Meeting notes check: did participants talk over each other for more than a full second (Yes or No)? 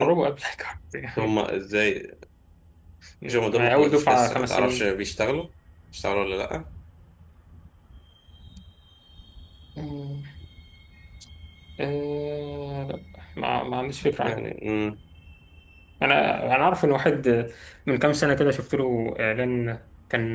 Yes